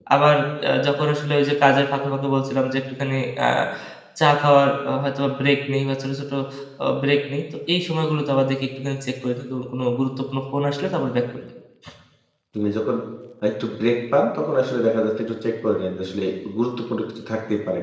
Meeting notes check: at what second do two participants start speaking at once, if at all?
none

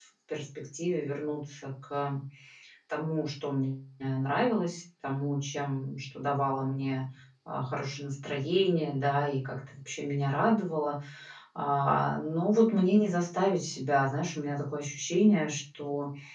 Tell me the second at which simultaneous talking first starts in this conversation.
none

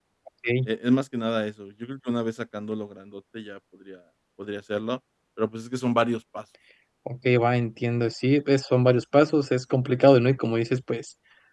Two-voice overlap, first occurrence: none

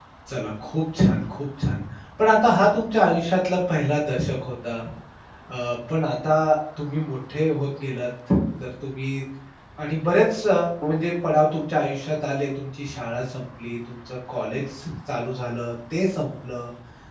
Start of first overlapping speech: none

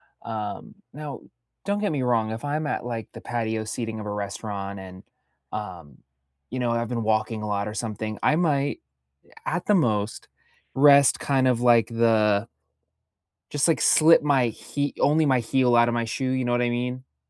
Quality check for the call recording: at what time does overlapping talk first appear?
none

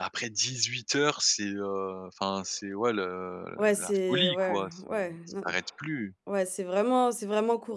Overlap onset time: 3.6 s

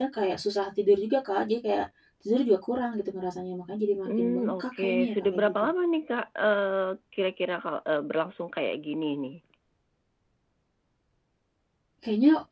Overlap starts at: 4.1 s

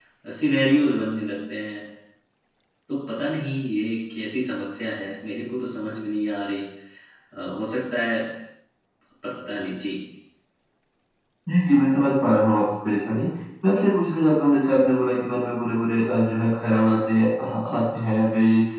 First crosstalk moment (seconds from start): none

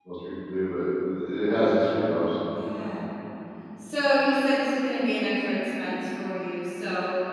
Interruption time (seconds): none

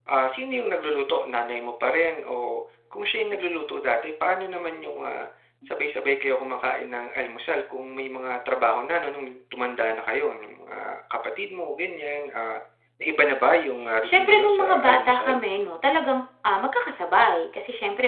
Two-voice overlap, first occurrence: 14.0 s

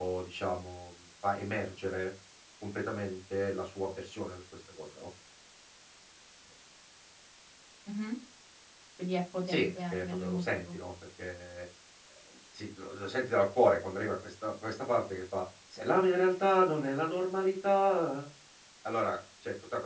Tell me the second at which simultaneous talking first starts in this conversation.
9.5 s

